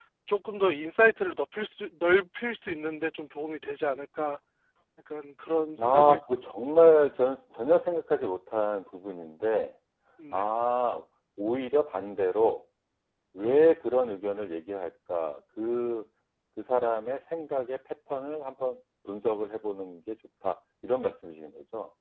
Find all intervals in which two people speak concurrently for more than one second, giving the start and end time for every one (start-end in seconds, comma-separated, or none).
none